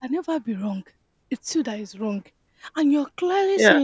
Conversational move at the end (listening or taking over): listening